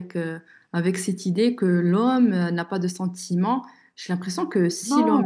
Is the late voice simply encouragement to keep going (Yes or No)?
No